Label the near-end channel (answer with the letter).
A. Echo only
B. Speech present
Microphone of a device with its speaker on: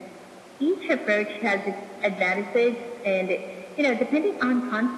A